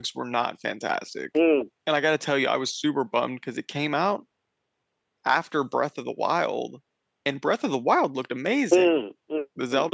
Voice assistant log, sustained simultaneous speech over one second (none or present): none